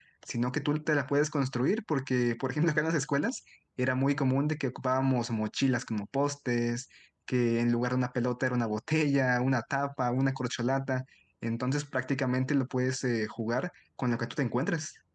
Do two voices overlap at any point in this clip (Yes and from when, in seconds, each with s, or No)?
No